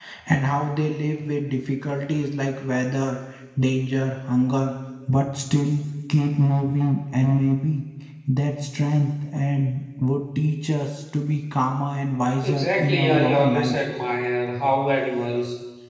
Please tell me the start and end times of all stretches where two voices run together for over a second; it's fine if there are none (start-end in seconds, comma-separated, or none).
12.4-13.8